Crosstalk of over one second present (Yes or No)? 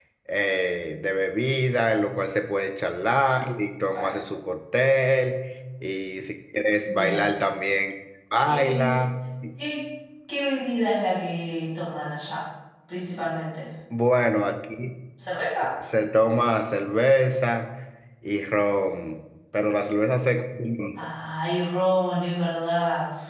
No